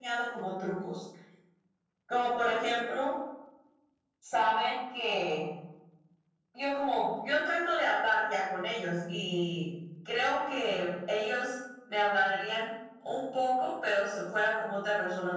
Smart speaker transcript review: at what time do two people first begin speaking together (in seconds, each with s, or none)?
none